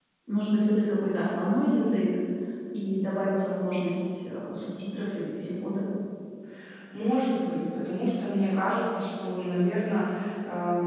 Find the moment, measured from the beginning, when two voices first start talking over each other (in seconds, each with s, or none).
none